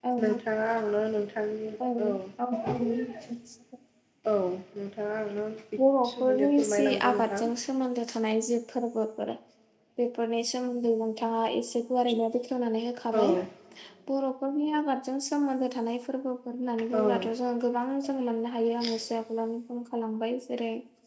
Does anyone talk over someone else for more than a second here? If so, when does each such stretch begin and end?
6.0-7.5

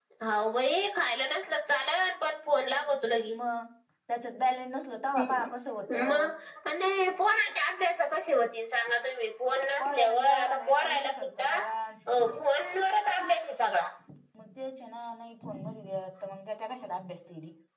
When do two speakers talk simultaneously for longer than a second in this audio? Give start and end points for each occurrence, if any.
9.8-11.7

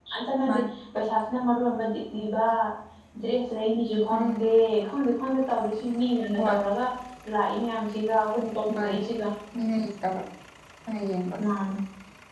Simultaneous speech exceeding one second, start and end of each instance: none

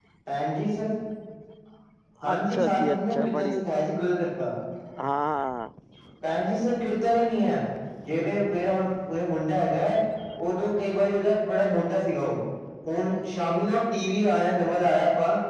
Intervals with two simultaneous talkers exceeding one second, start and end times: 2.3-3.6

